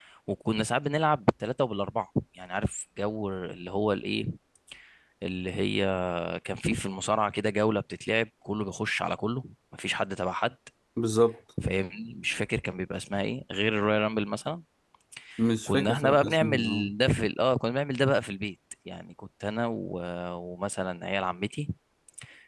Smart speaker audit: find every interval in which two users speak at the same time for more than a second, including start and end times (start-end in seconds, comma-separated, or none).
15.7-16.9